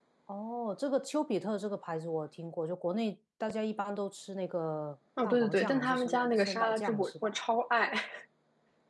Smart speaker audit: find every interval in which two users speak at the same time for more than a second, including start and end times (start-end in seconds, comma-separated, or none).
5.2-7.3